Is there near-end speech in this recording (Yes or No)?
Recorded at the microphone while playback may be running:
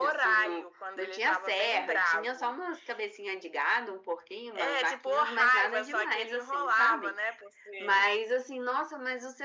No